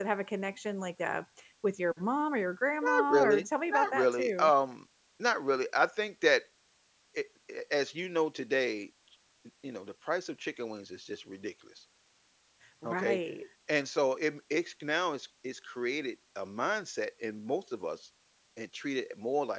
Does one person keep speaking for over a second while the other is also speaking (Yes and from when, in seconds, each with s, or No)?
Yes, from 2.8 s